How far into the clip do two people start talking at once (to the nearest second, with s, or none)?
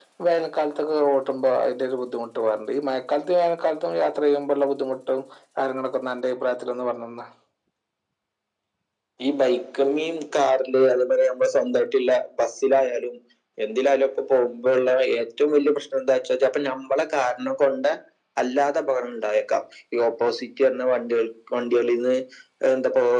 none